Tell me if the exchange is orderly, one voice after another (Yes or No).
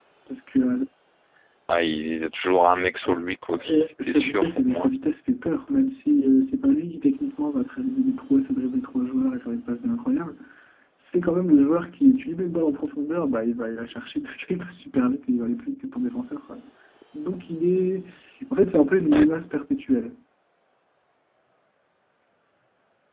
No